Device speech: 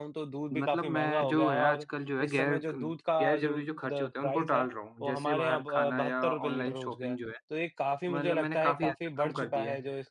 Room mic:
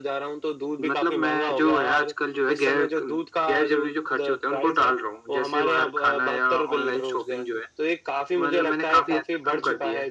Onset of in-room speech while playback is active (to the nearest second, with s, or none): none